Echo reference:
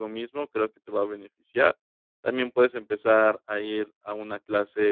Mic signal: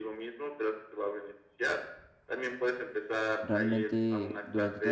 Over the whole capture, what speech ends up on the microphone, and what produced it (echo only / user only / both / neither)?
both